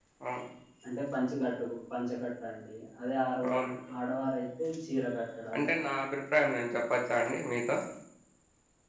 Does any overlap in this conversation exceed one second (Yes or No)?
No